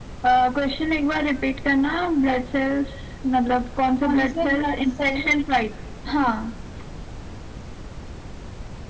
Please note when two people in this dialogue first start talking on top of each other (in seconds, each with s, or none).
4.0 s